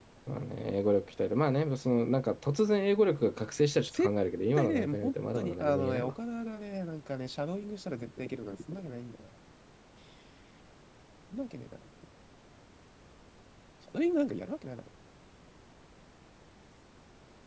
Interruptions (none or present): present